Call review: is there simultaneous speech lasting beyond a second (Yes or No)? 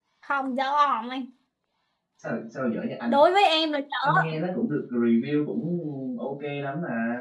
No